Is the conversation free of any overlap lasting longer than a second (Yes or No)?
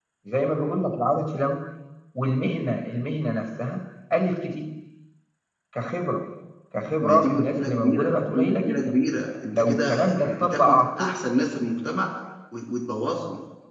No